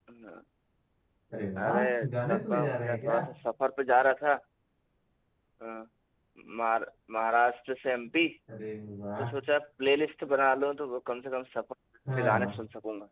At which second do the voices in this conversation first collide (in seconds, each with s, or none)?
1.6 s